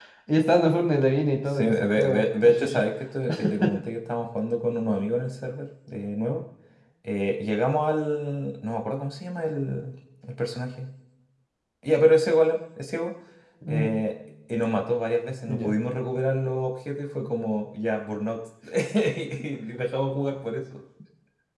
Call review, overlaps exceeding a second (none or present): present